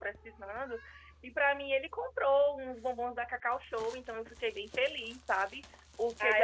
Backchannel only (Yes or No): No